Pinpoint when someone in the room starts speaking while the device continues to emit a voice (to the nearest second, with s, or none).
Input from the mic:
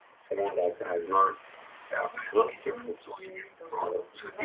2 s